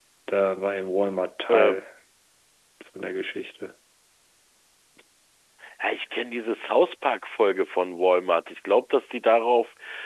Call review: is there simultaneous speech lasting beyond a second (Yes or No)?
No